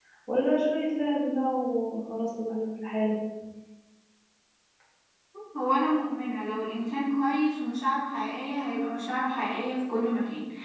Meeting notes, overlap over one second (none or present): none